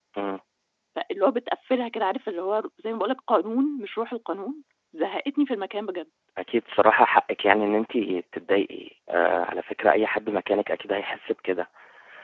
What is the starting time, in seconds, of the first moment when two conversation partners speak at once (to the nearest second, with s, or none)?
none